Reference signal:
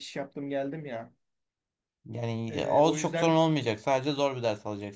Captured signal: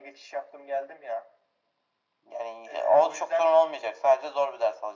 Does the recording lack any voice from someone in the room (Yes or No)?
Yes